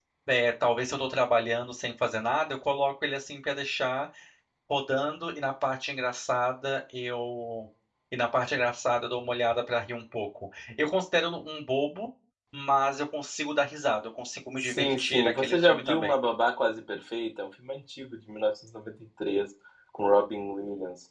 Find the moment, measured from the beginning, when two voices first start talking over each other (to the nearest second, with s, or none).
15 s